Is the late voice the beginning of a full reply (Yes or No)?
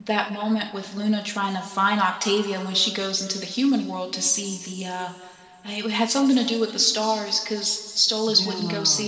No